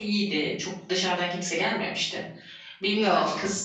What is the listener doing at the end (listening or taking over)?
listening